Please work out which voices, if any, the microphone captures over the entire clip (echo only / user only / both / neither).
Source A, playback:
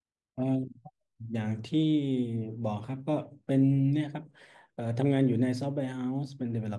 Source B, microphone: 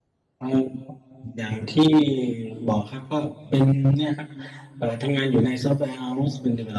echo only